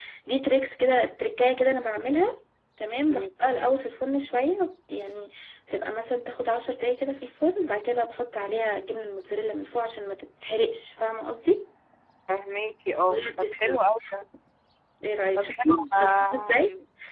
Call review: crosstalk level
present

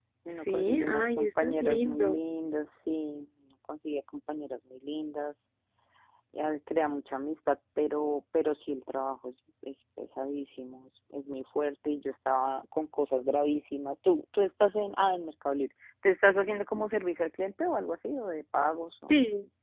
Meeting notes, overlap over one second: present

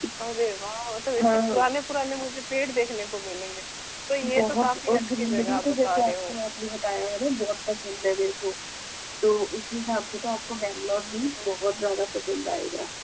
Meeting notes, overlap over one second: present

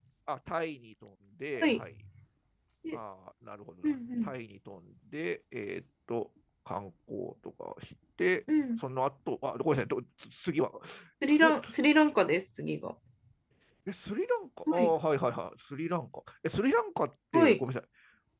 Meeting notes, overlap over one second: none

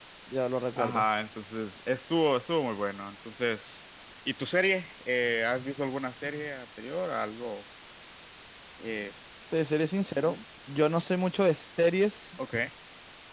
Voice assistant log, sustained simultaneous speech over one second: none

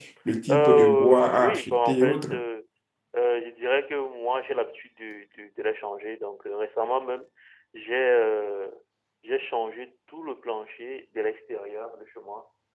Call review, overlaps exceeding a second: present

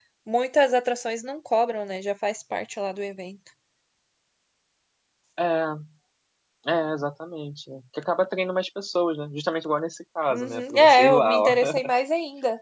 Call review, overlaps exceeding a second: present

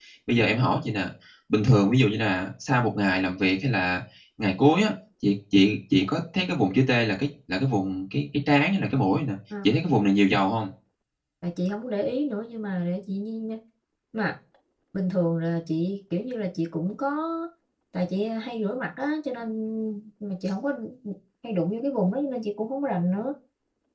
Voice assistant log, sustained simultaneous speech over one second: none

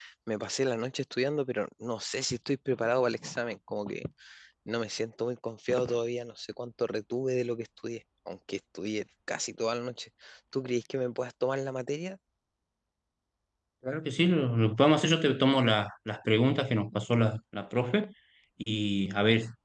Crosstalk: none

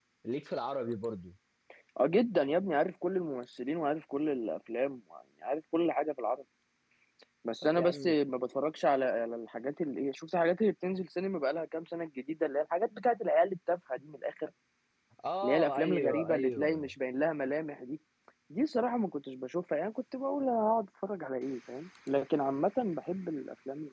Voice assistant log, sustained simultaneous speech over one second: present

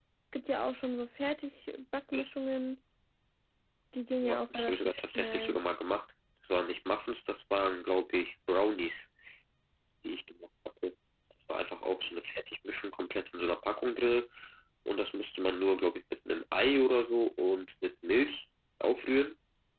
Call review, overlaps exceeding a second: present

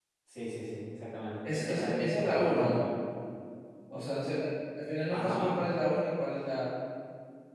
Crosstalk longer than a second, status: present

